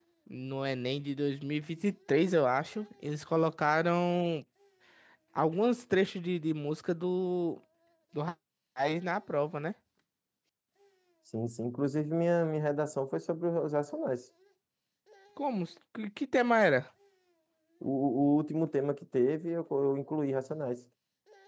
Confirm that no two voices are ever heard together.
Yes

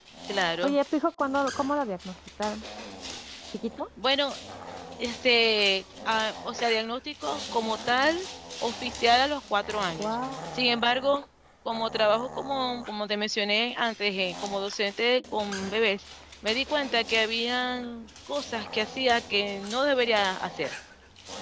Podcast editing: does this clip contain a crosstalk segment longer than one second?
No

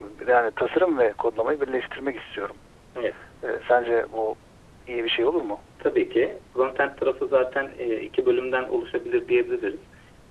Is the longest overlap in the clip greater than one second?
No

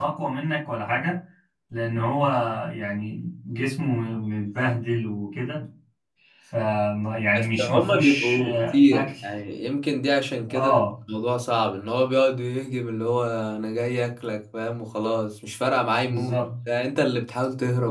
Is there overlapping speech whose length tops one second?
Yes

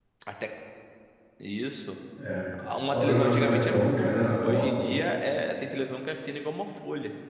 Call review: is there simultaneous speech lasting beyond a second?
Yes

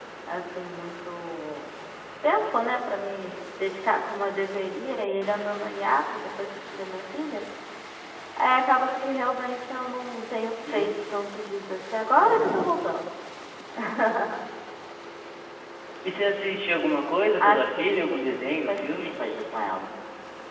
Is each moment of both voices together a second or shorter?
No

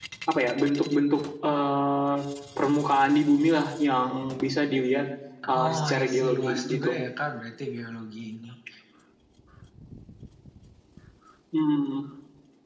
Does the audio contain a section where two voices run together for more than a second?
Yes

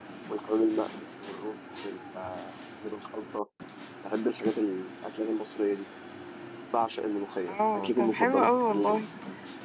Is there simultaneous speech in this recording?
Yes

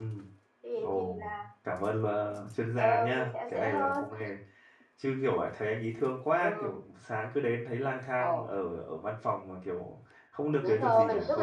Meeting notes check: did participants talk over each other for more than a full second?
Yes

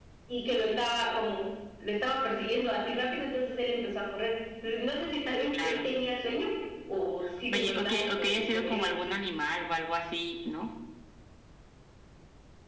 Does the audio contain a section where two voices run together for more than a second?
Yes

